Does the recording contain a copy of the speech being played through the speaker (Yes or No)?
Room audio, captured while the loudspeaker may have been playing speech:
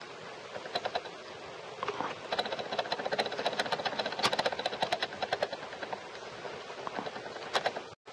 No